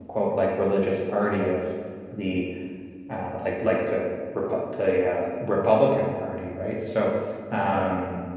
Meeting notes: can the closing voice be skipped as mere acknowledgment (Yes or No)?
Yes